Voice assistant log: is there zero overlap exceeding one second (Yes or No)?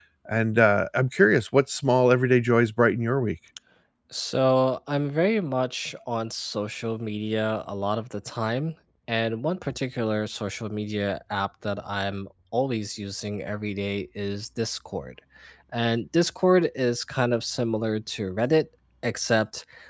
Yes